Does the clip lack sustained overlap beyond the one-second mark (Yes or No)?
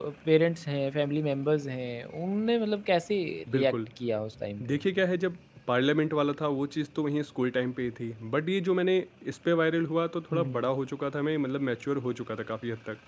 Yes